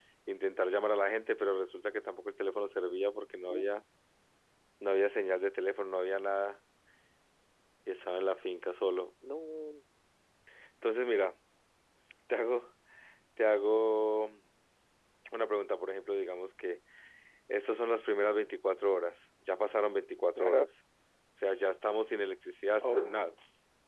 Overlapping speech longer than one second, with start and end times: none

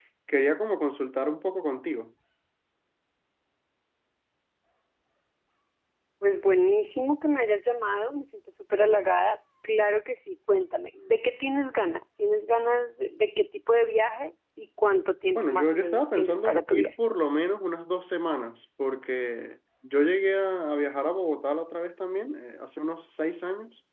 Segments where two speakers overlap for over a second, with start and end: 15.3-16.9

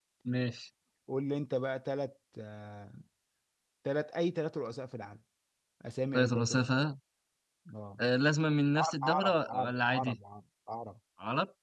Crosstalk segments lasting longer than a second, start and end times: 8.8-10.2

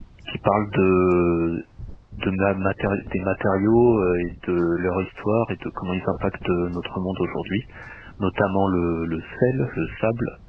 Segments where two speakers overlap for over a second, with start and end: none

